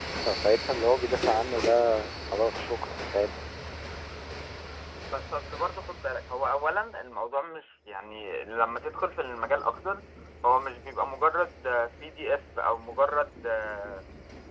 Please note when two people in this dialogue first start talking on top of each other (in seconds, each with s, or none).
none